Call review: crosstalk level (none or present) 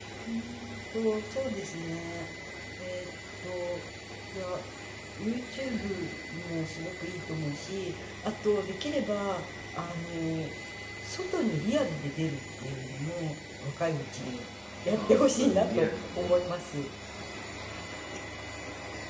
present